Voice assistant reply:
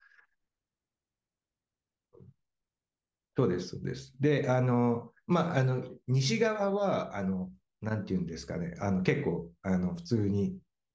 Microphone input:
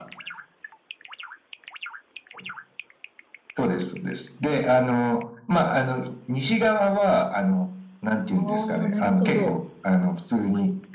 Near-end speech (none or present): present